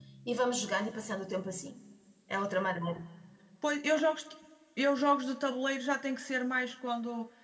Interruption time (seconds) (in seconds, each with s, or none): none